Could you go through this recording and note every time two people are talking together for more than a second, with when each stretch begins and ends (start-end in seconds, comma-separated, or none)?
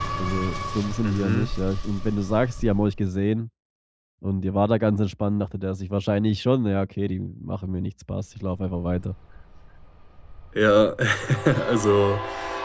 none